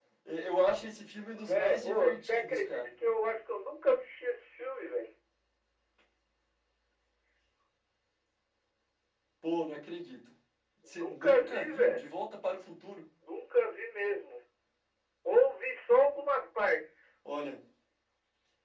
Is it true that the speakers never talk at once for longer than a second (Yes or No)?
No